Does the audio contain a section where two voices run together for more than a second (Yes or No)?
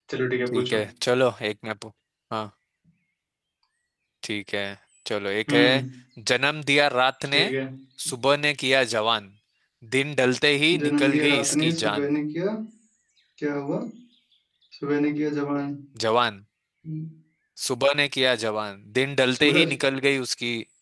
Yes